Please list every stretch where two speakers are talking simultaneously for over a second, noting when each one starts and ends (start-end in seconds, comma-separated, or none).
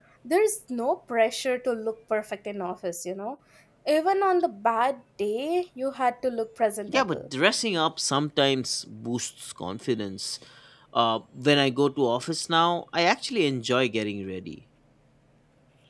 none